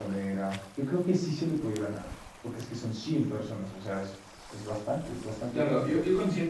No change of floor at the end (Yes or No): No